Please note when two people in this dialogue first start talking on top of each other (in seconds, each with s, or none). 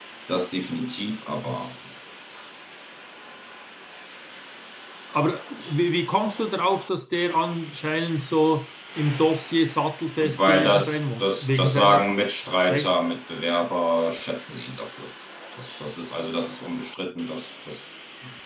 10.2 s